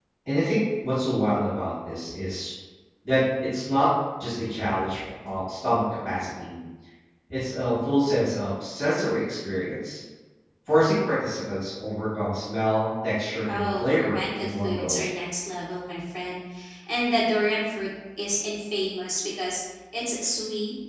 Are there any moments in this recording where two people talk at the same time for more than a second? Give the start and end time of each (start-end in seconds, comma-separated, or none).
13.5-15.0